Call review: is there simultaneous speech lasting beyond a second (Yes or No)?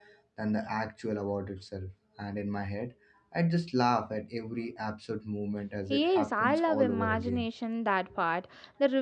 Yes